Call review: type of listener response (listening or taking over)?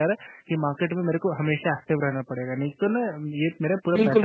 taking over